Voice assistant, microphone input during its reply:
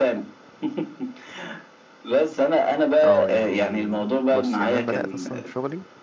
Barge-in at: 3.0 s

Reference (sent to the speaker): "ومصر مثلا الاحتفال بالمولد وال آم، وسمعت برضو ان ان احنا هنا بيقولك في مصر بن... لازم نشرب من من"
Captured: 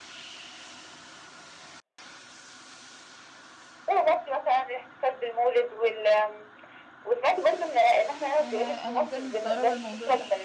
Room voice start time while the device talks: 8.4 s

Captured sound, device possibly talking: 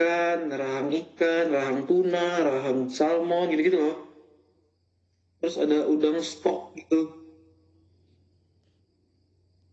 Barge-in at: none

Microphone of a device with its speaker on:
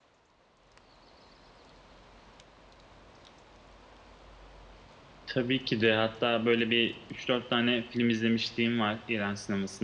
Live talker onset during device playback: 5.3 s

